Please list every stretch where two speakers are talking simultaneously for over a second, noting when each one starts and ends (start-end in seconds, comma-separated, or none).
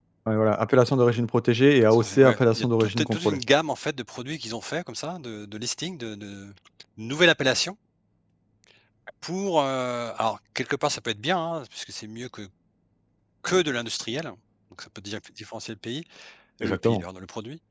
1.9-3.4